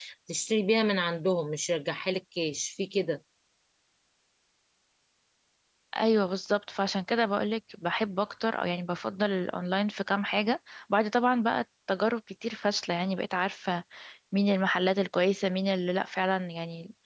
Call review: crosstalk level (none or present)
none